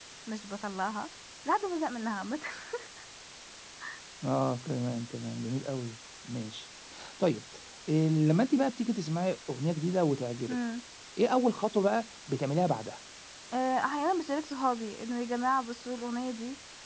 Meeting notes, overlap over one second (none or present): none